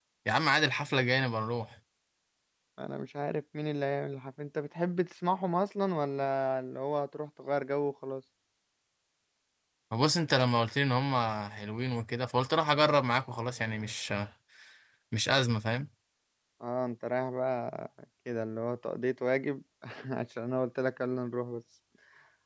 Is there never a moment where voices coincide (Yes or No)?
Yes